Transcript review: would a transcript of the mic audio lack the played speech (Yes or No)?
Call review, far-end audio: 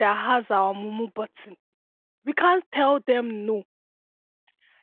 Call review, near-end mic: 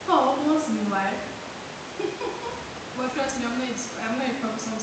Yes